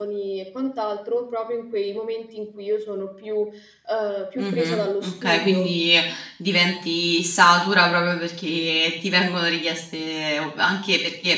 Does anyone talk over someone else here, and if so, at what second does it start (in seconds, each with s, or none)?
4.4 s